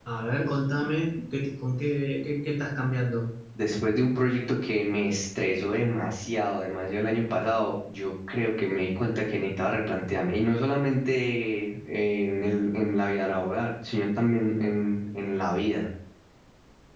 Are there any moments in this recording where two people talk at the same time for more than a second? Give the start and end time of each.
none

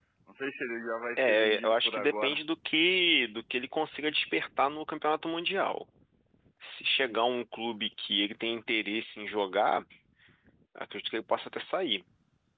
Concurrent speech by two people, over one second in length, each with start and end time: 1.2-2.4

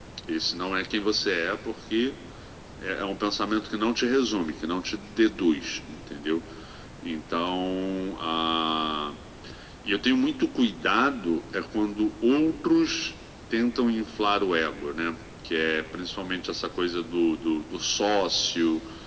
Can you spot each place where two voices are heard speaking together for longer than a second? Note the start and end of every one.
none

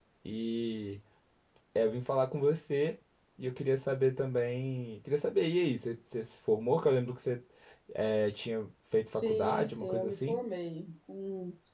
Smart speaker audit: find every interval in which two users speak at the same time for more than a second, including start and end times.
9.1-10.4

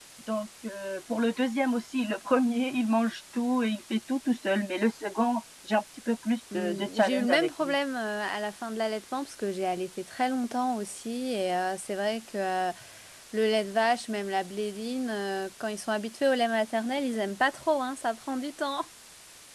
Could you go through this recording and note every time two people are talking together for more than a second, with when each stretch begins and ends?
6.5-7.7

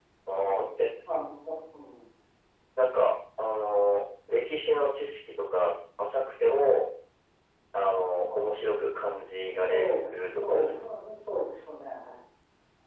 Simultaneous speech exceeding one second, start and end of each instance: 9.4-10.8

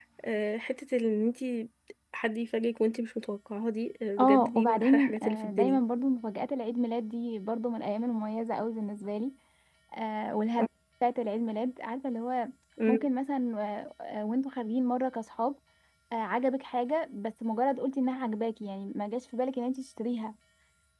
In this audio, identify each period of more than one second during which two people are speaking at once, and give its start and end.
4.2-5.8

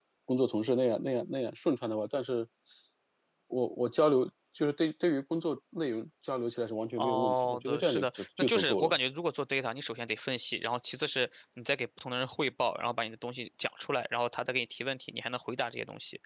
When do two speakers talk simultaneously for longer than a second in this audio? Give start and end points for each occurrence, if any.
7.0-8.9

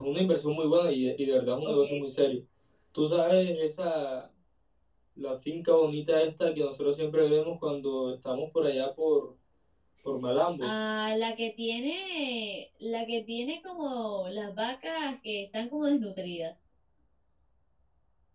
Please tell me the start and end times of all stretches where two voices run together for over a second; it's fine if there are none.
none

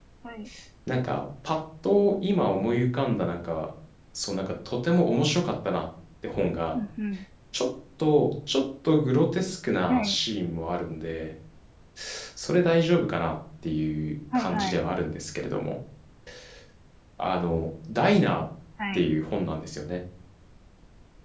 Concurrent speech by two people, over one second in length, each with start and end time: none

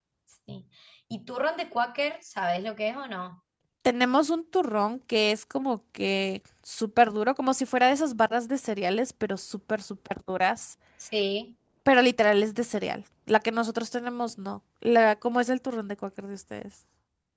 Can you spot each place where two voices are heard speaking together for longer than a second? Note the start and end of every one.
none

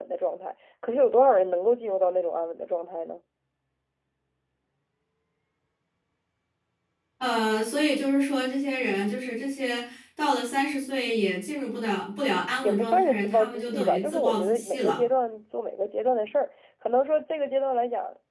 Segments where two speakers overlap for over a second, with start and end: 12.6-15.0

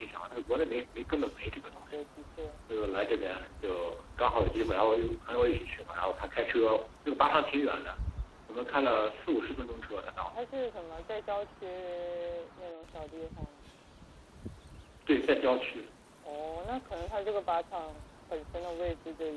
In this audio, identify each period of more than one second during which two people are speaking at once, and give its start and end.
none

